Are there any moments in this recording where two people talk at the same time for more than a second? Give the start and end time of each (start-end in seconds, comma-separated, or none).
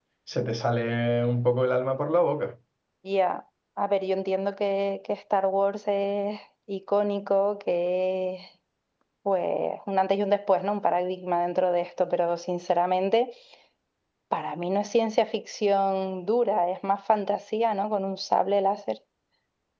none